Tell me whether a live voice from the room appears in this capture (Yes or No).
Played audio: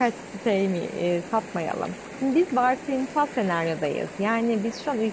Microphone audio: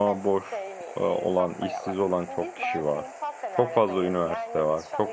Yes